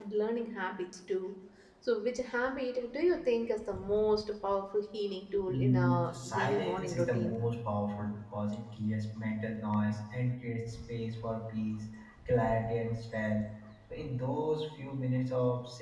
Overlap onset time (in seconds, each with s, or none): 5.5 s